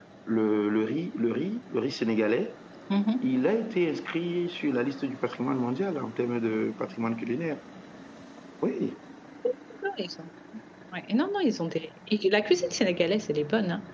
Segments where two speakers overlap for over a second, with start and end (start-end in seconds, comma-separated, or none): none